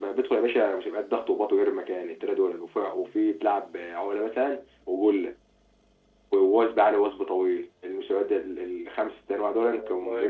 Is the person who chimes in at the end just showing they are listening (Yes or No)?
Yes